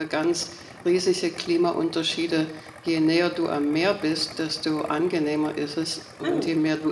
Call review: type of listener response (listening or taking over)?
listening